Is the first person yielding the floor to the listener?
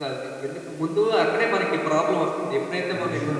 No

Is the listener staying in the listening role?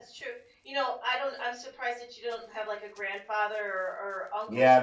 No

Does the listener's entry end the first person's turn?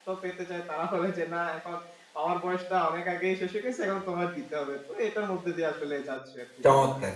Yes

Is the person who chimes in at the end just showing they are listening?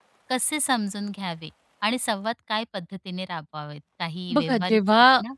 No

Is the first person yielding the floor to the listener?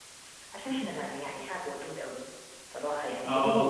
No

